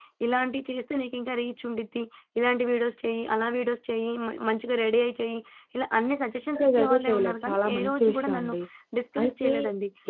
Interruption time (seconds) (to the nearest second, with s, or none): 7 s